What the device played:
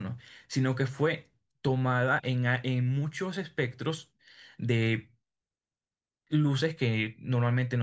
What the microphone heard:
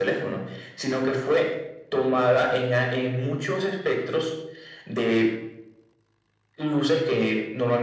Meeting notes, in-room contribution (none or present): none